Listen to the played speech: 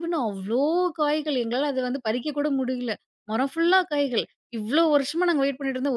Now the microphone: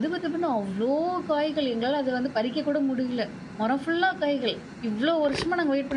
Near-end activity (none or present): none